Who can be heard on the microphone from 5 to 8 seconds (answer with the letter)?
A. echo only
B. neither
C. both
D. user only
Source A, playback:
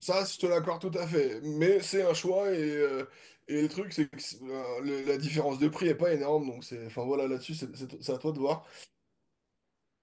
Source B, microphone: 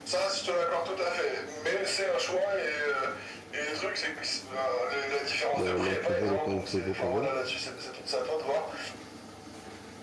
C